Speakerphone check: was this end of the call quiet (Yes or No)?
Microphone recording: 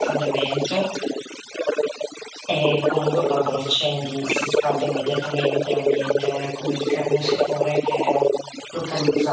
No